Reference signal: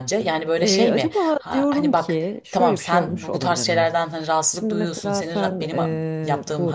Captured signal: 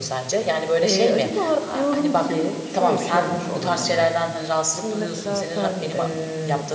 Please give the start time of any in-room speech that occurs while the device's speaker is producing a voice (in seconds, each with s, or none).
none